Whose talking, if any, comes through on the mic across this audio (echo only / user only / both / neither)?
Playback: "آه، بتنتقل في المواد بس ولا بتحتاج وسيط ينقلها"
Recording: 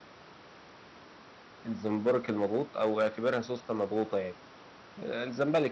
user only